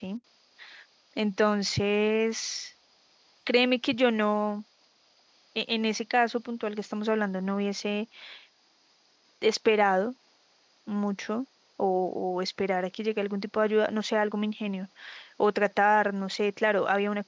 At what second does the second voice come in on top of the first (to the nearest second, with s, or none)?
none